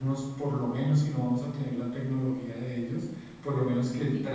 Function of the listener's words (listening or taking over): listening